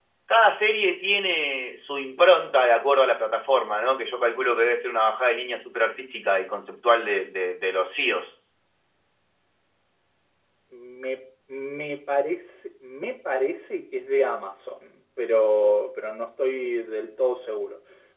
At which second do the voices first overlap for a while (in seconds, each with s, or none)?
none